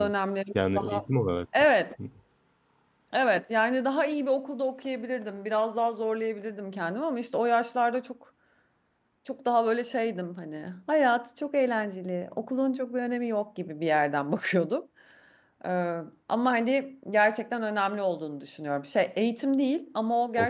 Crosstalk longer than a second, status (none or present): none